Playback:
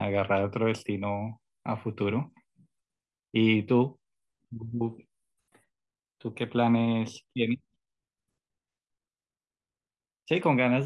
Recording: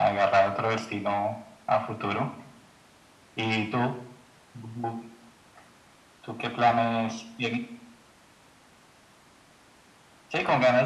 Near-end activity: none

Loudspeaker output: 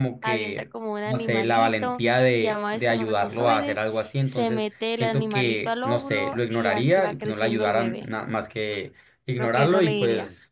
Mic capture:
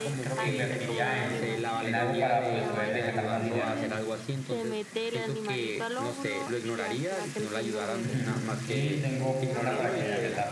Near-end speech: present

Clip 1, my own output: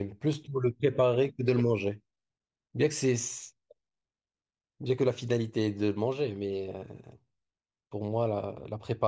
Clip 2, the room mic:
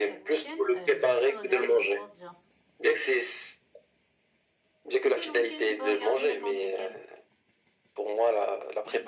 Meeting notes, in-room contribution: present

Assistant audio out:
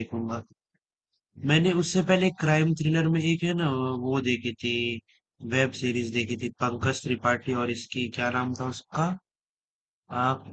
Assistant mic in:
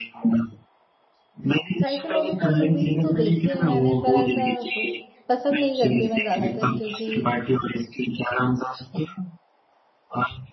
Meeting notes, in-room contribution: present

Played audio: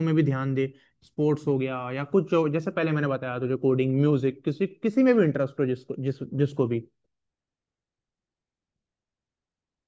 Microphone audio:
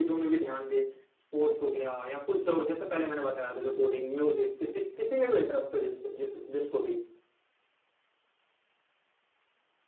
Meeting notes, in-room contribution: none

